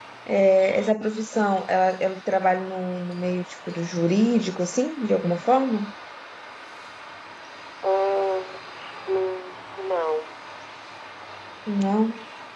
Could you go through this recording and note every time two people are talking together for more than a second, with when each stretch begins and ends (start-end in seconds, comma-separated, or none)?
none